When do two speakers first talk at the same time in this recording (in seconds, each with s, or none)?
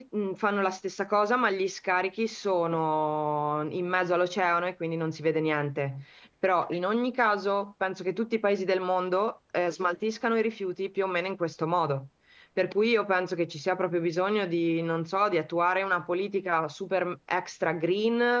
none